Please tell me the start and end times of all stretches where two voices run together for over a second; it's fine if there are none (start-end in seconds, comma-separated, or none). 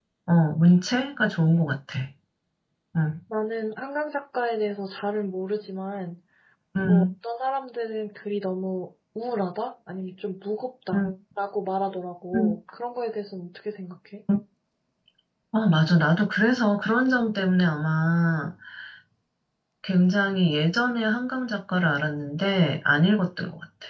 none